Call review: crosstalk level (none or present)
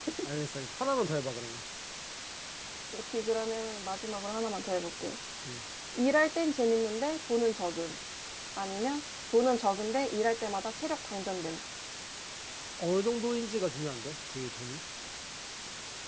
none